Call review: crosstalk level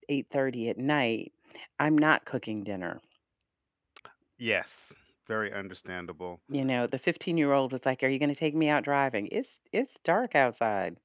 none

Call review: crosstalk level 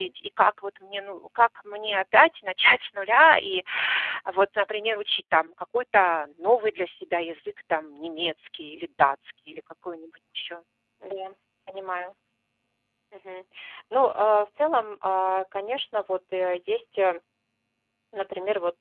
none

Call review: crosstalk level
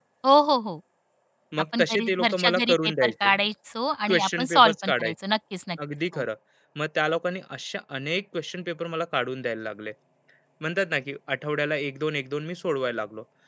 present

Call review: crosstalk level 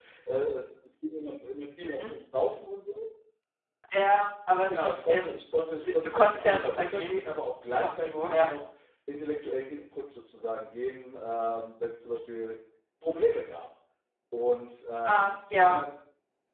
present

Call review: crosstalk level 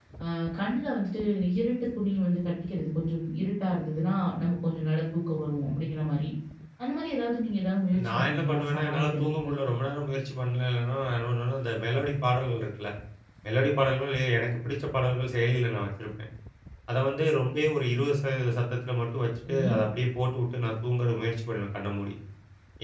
present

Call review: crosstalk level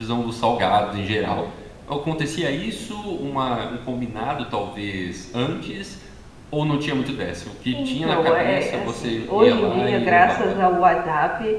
present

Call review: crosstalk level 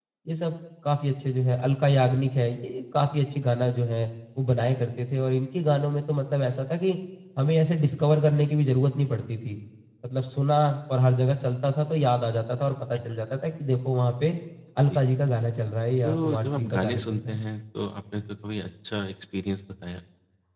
present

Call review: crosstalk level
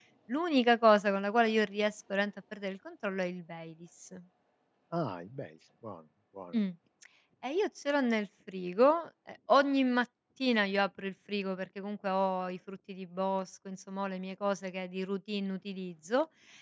none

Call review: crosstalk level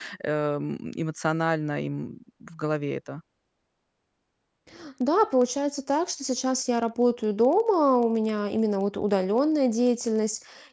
none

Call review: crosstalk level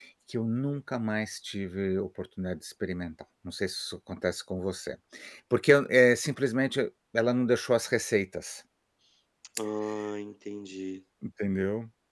none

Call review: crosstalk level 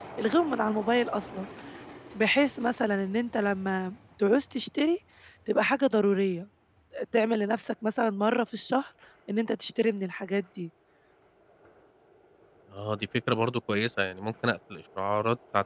none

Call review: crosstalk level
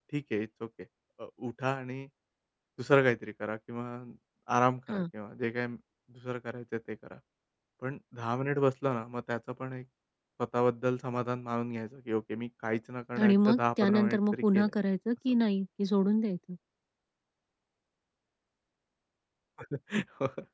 present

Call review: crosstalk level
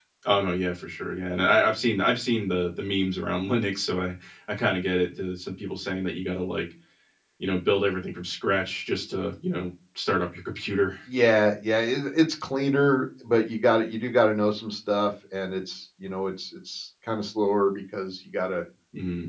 none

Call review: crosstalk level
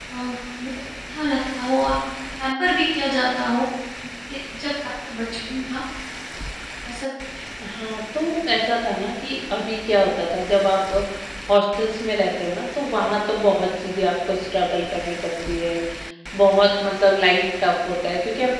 none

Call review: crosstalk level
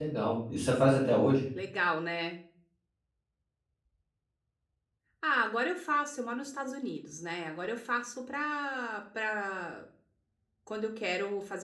none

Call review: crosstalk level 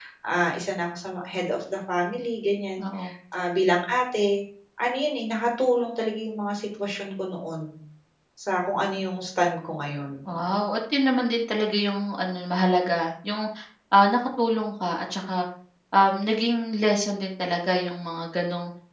none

